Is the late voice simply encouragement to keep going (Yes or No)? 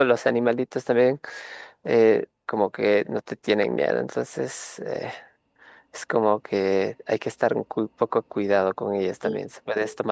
Yes